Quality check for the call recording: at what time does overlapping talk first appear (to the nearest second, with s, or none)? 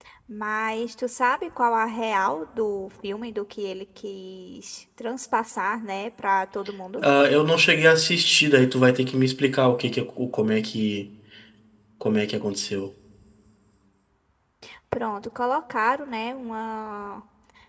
none